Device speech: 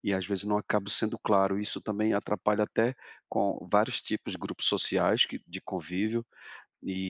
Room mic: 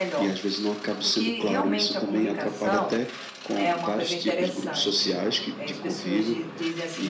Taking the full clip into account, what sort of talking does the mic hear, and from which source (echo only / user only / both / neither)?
both